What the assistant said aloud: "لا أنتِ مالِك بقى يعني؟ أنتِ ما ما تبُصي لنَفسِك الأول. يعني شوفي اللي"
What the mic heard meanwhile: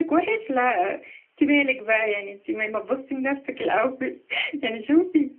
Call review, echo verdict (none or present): present